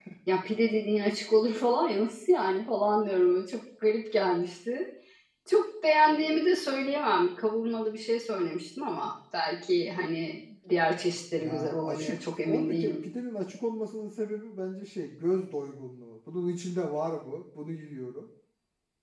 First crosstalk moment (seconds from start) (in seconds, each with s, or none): 11.4 s